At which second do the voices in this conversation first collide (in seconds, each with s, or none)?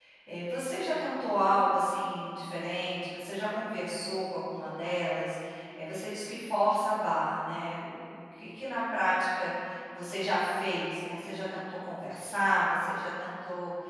none